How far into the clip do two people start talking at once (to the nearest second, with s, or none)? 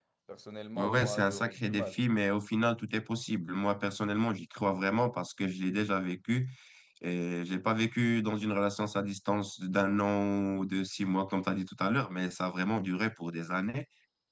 1 s